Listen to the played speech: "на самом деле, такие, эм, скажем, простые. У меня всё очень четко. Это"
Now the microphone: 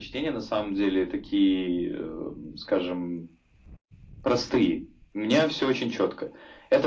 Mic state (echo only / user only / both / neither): echo only